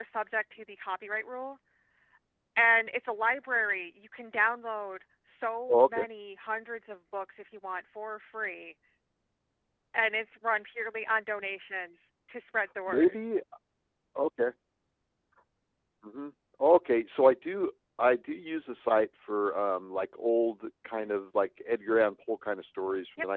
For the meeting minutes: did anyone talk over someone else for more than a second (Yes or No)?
No